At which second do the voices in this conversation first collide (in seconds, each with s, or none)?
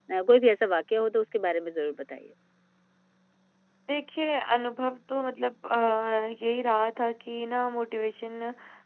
none